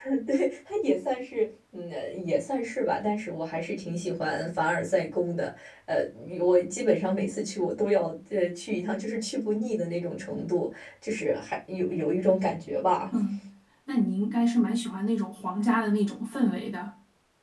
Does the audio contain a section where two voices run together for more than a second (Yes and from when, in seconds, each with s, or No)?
No